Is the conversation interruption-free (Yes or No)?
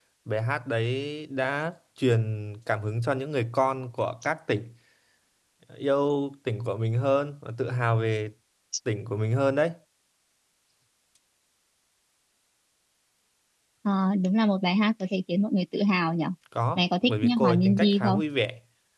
No